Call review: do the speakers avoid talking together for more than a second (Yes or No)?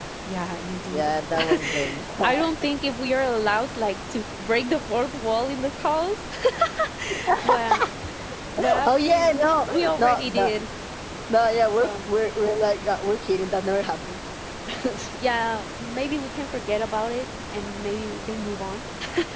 No